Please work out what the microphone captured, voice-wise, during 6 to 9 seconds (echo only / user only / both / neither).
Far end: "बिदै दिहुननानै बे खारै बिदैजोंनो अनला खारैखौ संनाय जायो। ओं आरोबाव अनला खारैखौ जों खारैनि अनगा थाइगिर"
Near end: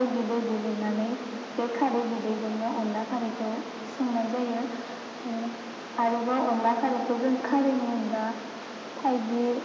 echo only